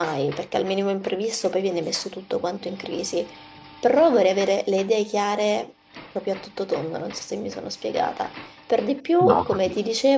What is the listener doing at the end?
listening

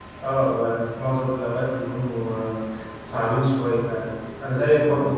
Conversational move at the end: listening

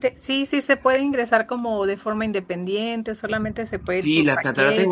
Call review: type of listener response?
taking over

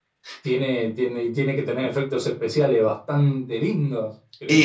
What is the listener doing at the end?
taking over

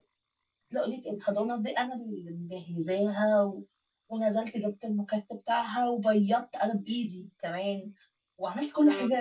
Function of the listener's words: listening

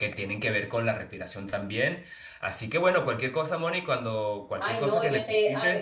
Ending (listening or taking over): taking over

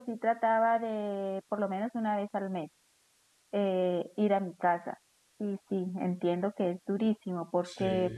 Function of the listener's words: listening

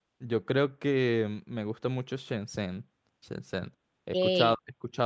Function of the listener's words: listening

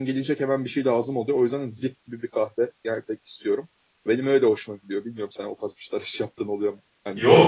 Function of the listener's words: taking over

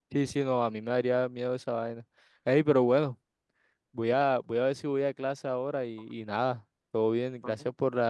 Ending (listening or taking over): listening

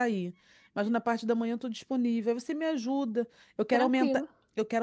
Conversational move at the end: listening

